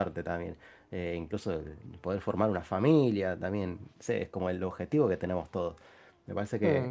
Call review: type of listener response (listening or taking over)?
listening